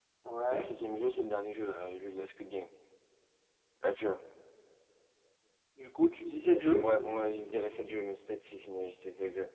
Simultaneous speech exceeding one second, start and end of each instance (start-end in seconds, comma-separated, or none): none